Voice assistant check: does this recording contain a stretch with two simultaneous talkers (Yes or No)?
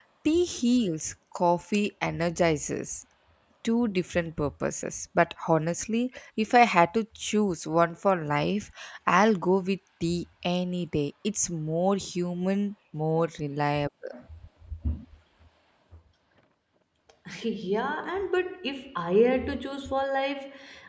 No